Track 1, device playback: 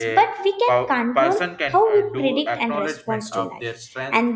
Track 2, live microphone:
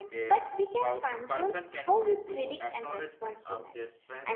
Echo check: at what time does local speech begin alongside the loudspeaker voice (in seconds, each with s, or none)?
none